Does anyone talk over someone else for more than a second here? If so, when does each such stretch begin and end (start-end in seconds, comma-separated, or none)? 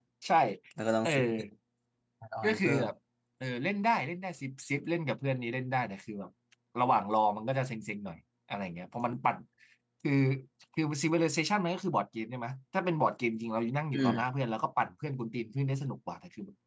none